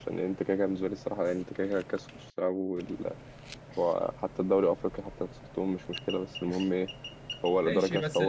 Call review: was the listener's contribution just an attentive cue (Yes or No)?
No